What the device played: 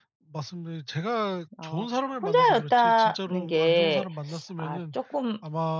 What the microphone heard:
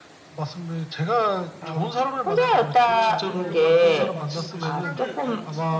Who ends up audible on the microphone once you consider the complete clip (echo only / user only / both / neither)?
both